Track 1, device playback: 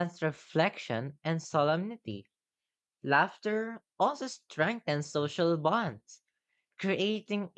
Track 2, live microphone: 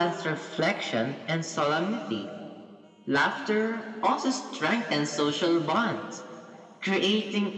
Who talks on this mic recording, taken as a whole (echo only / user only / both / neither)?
echo only